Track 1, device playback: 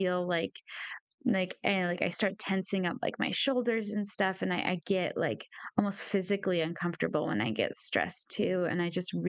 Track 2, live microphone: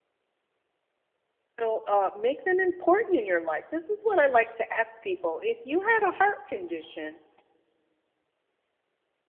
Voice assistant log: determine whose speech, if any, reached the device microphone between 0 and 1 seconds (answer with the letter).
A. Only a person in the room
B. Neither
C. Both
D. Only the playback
B